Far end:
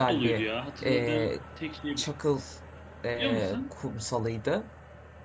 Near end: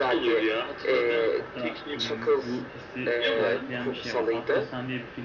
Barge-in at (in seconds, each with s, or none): 1.3 s